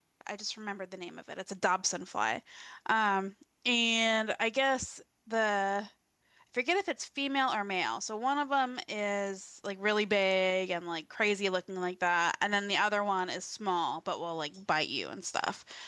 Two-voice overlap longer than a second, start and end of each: none

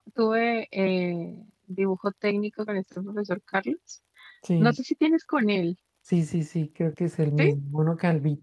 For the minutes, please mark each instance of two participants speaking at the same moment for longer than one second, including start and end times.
none

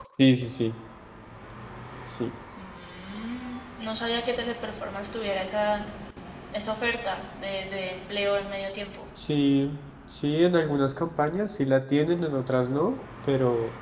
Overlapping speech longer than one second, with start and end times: none

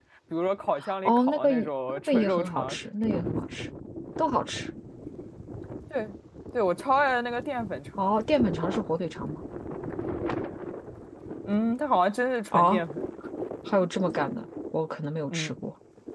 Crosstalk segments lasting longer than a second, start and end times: 1.1-2.8

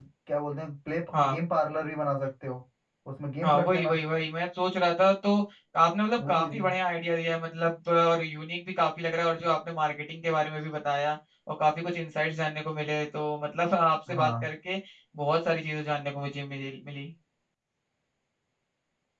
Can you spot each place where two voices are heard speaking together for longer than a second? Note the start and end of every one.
none

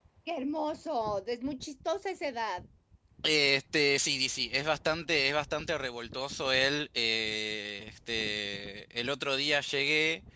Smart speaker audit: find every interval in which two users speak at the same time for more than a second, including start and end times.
none

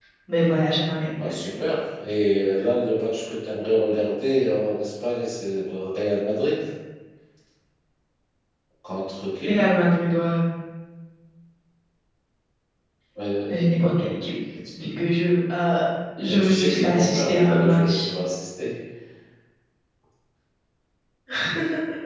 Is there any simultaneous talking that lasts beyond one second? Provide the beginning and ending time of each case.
16.3-18.1

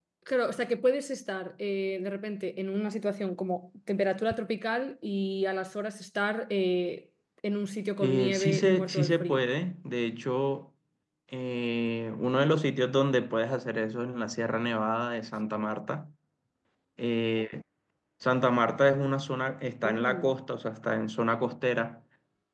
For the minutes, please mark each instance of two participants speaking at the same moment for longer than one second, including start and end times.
8.0-9.4

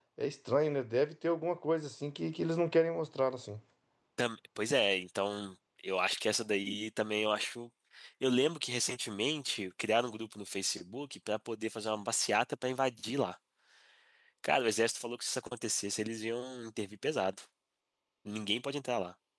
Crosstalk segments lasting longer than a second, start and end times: none

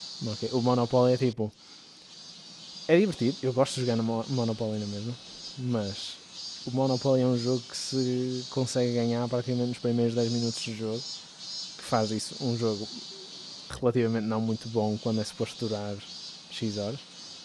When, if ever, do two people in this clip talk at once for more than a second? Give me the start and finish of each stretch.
none

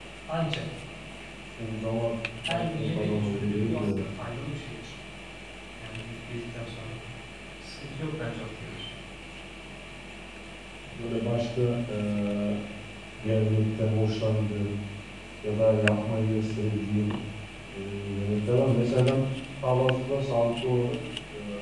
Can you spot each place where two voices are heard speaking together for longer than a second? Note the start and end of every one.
2.5-4.0

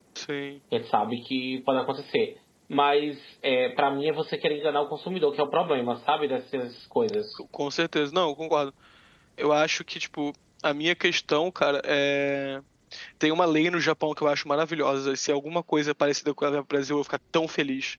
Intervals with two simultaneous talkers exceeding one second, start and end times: none

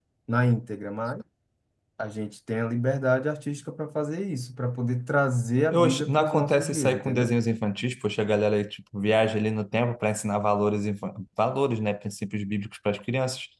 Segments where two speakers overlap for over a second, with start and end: 5.7-7.3

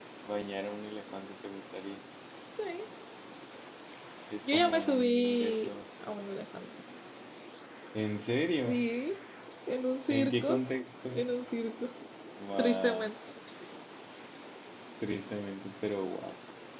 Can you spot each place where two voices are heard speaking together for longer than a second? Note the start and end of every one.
4.5-5.7

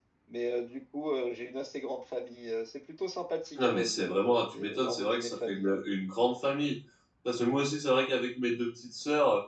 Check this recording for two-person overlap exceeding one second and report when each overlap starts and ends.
3.5-5.7

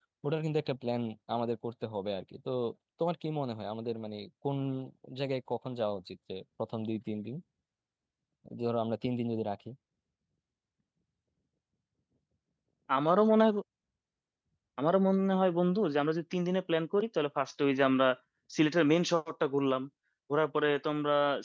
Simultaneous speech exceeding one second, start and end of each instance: none

